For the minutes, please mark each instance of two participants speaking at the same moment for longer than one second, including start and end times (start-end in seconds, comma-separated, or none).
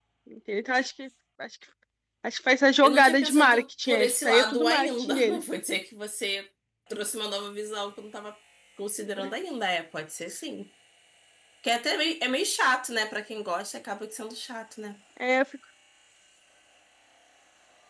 2.8-5.4